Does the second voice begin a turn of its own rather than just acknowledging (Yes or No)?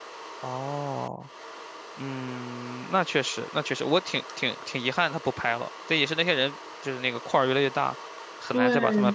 Yes